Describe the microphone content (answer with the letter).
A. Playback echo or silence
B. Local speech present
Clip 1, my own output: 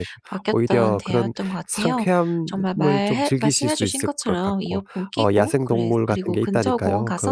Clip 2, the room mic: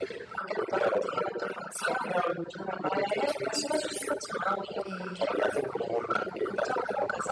B